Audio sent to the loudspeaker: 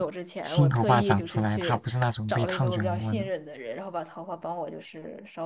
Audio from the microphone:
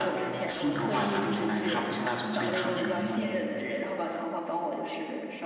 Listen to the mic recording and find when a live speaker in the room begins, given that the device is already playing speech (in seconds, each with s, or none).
none